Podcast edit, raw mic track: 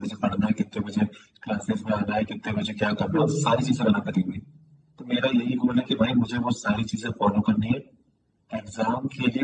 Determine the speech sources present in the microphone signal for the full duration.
both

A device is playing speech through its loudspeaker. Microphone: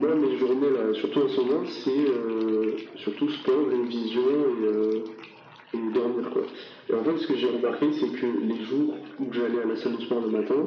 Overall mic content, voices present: echo only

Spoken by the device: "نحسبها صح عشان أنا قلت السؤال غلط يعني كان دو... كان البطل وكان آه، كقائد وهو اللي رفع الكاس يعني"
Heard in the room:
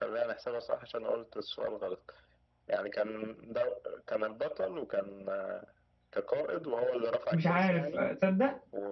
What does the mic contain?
both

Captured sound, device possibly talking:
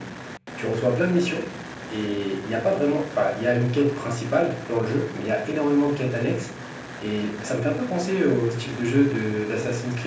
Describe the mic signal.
echo only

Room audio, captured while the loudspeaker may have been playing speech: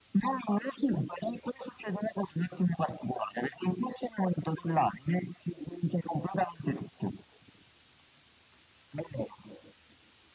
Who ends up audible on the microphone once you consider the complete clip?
echo only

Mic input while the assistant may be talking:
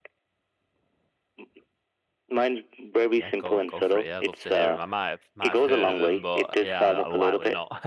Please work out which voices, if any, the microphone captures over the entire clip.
both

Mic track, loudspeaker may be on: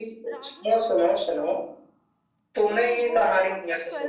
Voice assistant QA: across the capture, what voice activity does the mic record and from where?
both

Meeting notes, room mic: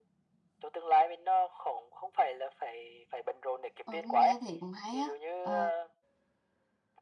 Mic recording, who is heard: both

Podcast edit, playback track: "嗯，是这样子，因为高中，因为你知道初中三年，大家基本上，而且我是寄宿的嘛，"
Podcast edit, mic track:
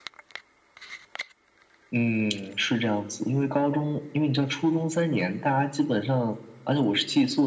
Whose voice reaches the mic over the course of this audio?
echo only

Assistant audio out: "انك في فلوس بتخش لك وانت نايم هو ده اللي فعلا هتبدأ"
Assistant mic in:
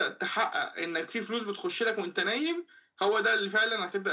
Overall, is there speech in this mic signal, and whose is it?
echo only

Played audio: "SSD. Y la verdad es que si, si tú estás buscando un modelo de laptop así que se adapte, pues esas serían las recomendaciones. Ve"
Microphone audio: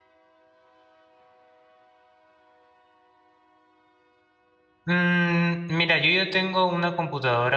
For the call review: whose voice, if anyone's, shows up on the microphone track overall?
user only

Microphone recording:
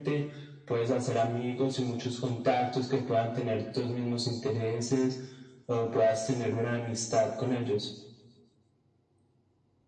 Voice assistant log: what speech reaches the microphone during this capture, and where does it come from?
echo only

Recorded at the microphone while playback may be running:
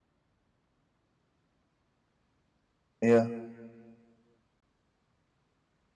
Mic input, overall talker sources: user only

